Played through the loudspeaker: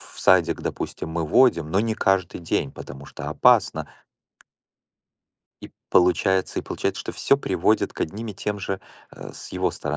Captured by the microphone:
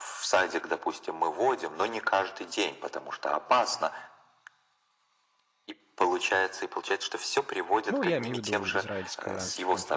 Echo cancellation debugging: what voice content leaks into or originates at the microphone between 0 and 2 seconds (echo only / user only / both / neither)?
echo only